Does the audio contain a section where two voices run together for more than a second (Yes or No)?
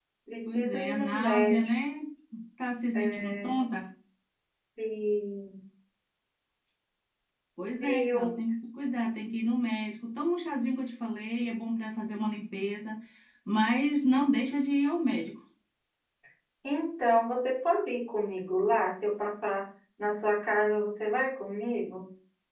Yes